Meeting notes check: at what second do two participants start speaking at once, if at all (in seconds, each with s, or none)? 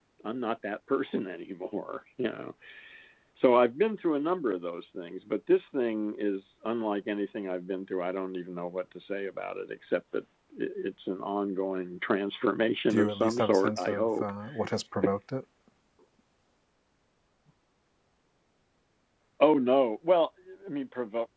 12.9 s